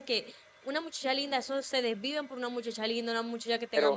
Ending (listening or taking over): taking over